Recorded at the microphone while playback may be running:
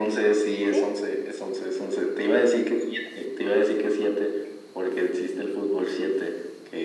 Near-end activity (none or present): present